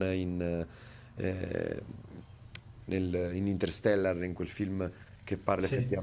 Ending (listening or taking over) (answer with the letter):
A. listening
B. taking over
A